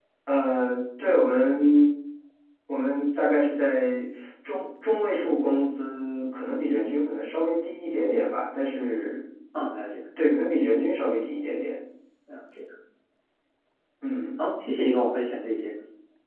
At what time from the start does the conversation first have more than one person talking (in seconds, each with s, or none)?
none